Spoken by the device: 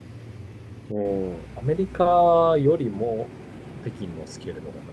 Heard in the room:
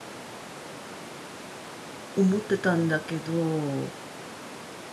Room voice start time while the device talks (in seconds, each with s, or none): 2.1 s